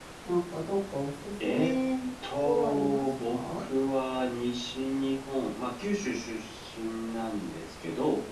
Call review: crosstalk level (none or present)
present